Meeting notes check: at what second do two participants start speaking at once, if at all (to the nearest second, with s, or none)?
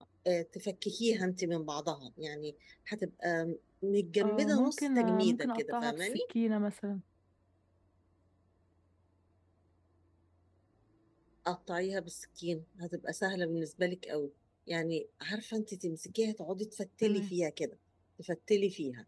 4 s